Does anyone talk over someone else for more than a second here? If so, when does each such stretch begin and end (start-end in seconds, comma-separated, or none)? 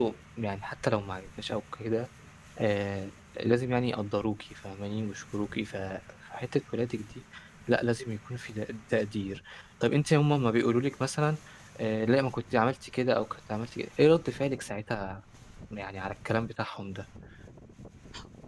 none